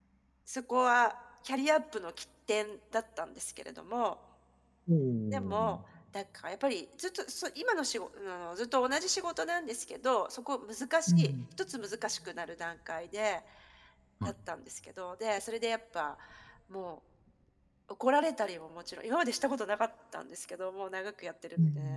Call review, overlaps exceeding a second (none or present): none